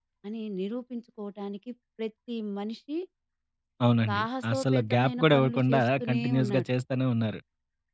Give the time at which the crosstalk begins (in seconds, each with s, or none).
4.1 s